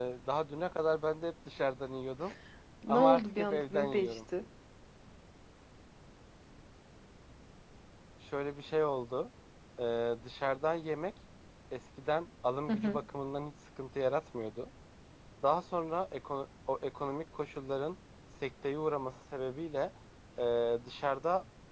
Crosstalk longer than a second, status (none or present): present